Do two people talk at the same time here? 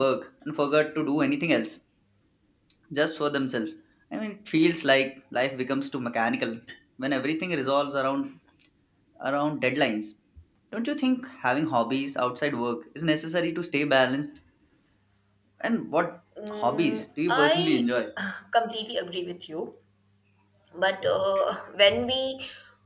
Yes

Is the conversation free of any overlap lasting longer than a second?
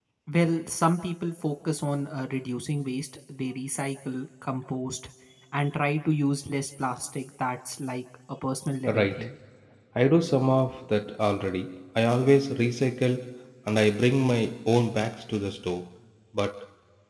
Yes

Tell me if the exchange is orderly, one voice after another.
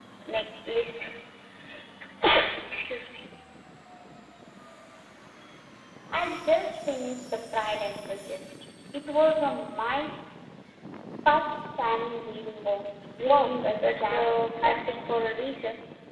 No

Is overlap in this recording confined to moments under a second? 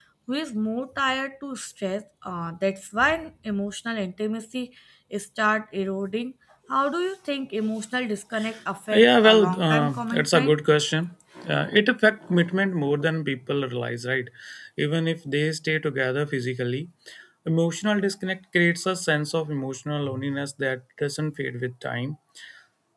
No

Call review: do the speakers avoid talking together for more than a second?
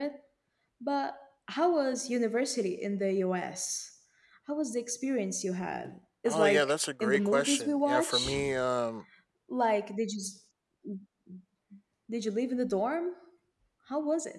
No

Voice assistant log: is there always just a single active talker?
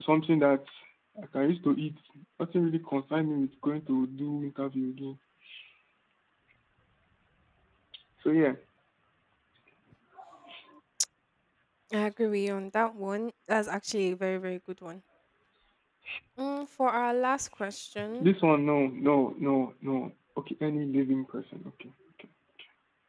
Yes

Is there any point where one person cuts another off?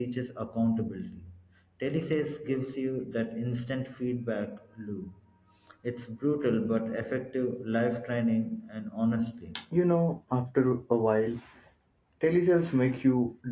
No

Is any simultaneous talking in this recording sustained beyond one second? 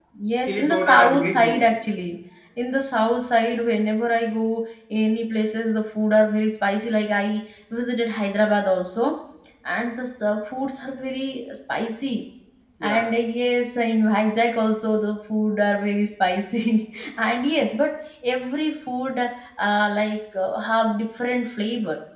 Yes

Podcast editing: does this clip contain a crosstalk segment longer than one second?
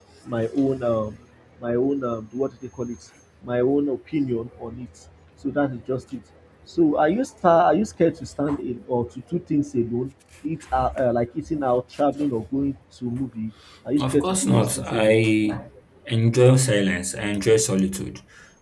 Yes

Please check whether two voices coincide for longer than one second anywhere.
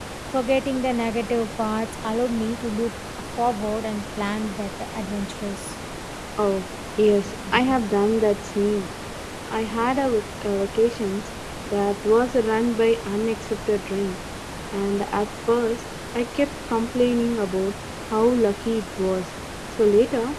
No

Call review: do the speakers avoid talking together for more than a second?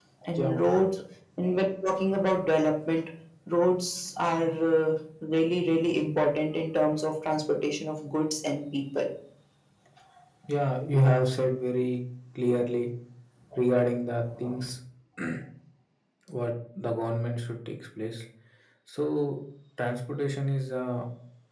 Yes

